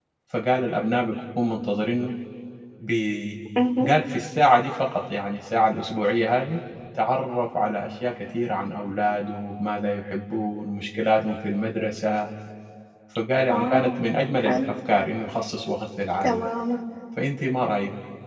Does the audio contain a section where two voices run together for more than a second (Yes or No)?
No